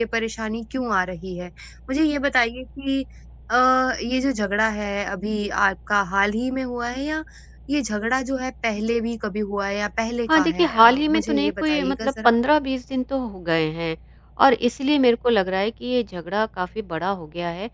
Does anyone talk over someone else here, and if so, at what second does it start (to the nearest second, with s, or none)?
10 s